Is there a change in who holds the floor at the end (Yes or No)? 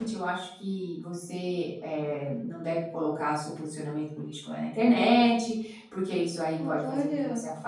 No